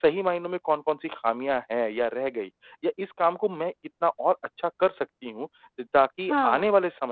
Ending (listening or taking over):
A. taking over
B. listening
B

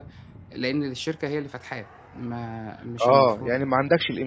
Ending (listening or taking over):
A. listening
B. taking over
B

